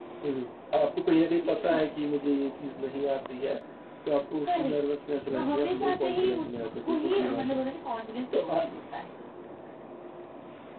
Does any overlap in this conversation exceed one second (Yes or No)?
Yes